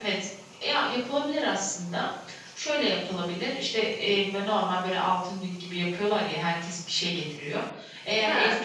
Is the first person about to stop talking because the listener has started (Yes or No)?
No